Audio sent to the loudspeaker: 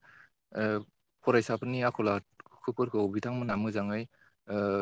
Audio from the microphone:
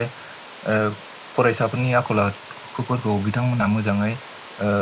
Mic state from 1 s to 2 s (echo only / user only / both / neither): echo only